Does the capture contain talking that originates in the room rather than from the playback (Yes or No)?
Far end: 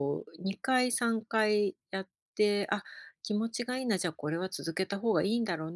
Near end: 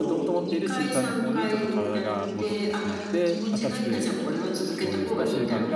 Yes